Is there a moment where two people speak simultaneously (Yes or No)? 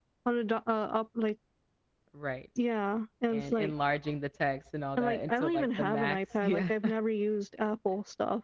Yes